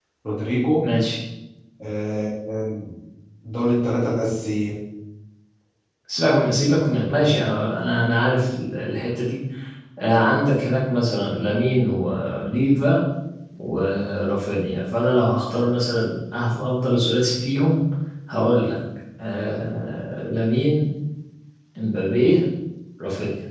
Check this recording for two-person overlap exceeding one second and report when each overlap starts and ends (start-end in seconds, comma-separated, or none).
none